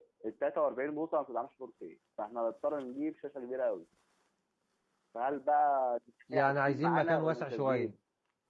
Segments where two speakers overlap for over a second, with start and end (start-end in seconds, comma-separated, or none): 6.3-7.9